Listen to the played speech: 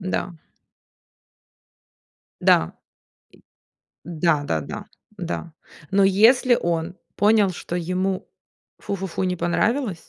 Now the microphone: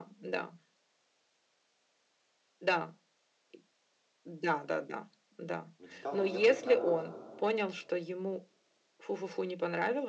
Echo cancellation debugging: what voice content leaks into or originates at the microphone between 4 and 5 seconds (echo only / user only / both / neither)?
echo only